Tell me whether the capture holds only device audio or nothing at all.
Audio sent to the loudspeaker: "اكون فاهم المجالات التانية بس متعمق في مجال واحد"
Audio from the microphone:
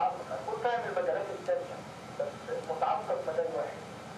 Yes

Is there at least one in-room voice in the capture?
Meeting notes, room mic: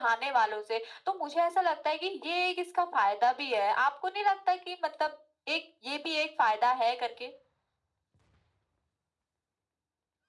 No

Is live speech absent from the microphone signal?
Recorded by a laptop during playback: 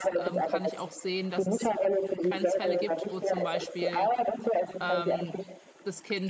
No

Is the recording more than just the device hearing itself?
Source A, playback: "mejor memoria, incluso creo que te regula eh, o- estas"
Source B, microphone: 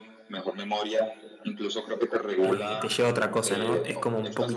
Yes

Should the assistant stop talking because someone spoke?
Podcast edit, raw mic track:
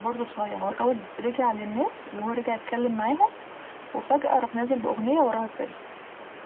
No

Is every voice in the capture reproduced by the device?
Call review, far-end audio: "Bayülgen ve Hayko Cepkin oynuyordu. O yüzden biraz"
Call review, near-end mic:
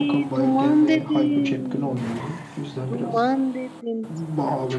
No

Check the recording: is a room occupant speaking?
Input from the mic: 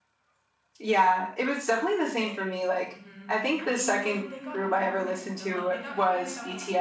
Yes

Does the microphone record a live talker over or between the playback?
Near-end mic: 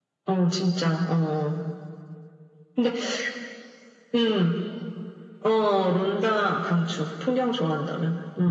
No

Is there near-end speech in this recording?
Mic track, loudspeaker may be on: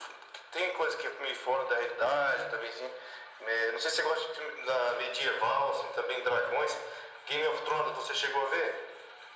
No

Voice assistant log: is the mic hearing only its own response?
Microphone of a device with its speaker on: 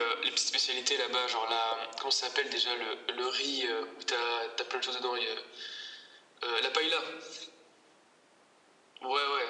Yes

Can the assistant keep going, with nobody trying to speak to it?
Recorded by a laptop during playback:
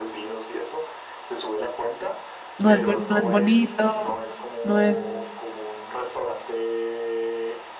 No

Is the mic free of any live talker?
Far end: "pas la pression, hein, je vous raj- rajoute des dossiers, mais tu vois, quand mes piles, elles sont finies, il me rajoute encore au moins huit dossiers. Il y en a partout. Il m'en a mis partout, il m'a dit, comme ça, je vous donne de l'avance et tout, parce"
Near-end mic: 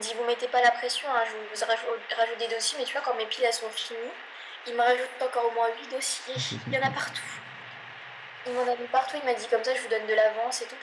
No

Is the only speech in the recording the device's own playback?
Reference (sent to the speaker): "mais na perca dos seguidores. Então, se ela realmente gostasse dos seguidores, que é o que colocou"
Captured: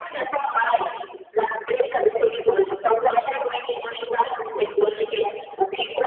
Yes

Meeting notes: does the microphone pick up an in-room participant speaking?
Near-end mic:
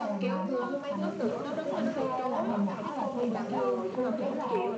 Yes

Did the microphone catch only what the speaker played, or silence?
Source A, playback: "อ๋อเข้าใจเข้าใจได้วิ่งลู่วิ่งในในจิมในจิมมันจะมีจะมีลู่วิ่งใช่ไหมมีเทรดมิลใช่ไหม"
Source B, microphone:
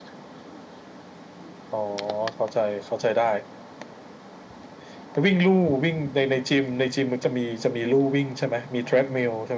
Yes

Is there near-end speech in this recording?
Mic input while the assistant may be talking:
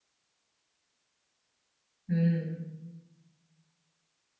Yes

